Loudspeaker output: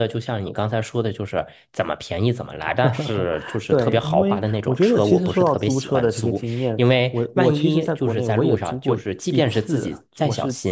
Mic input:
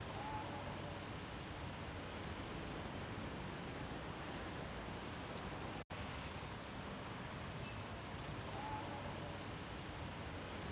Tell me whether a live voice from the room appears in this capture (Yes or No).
No